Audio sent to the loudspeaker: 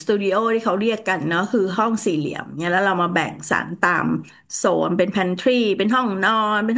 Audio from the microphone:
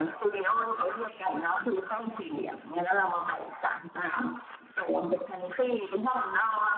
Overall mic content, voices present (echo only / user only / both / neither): echo only